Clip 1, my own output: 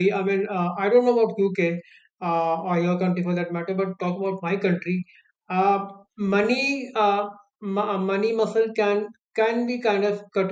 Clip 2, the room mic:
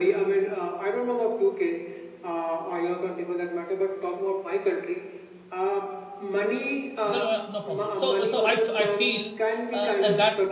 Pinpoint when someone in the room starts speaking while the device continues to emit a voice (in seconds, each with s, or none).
7.0 s